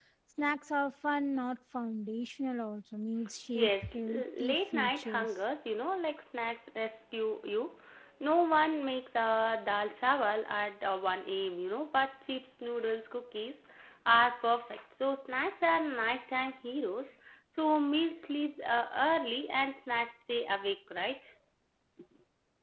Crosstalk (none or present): present